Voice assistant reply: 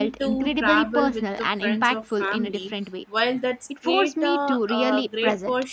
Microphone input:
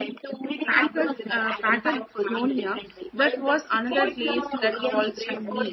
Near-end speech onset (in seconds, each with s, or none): 0.7 s